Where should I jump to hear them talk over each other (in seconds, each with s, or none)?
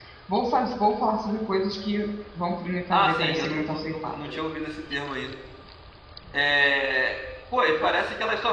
2.9 s